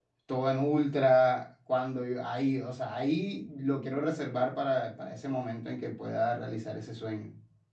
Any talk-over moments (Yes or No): No